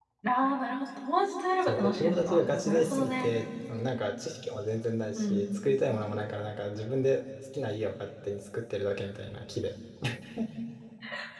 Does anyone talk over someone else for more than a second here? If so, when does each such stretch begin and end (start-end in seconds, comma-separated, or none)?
1.6-3.3